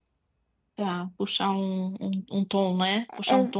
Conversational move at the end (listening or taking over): listening